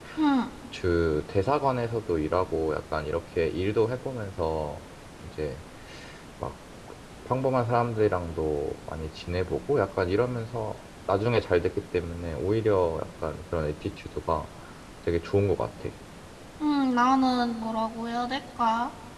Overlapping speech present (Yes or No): No